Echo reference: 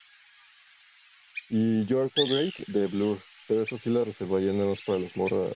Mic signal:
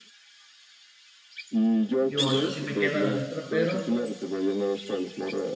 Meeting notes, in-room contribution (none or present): present